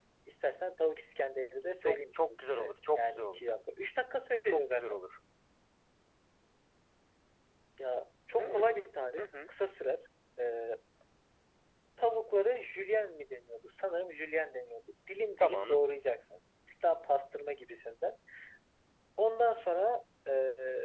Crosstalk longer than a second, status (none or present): present